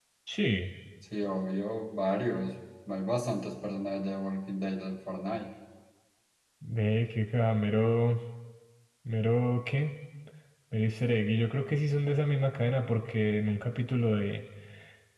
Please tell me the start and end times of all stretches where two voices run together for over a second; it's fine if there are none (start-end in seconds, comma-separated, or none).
none